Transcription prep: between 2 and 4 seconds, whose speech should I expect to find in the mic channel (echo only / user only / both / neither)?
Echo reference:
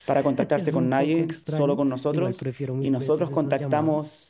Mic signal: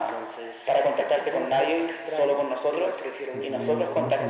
both